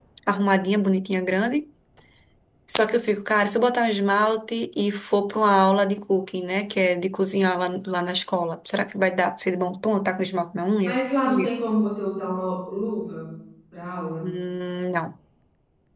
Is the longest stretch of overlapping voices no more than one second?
Yes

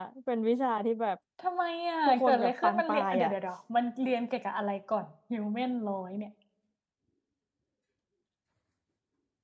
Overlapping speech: Yes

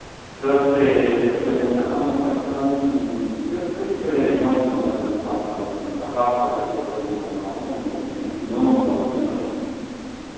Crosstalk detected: No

